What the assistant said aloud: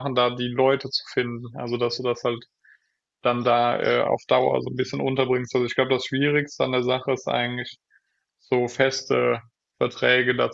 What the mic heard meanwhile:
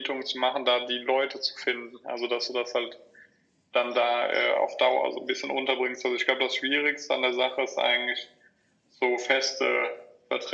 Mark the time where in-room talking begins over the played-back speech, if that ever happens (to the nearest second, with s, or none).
none